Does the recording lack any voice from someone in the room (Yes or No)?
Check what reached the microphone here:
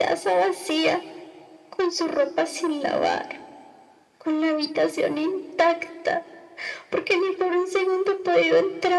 Yes